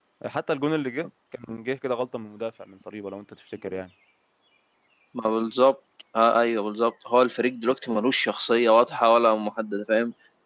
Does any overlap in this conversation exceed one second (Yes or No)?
No